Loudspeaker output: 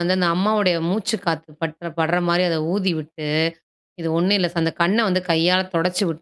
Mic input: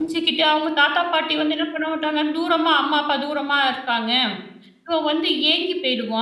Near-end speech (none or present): present